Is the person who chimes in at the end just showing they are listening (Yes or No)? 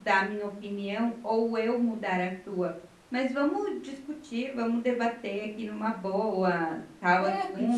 No